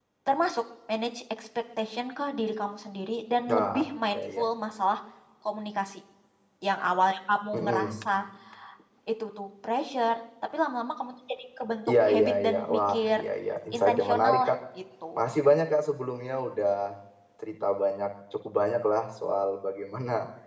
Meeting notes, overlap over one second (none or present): present